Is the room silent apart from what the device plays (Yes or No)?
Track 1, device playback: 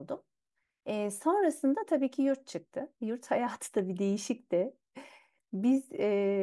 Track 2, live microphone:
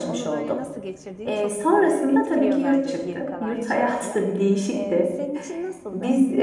No